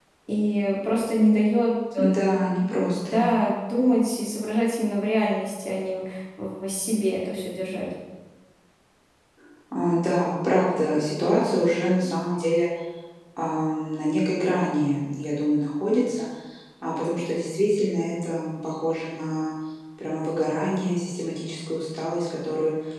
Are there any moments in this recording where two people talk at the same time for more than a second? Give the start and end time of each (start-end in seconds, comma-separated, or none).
none